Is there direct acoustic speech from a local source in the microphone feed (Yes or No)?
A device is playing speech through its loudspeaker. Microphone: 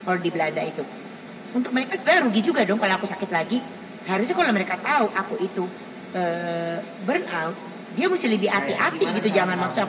Yes